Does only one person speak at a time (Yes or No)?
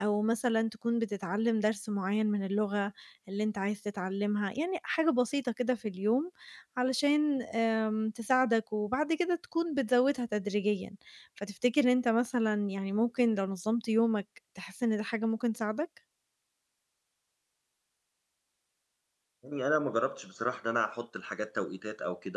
Yes